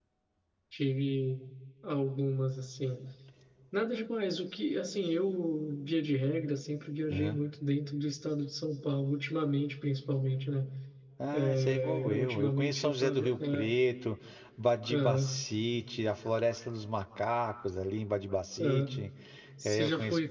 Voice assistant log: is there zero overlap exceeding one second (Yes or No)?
No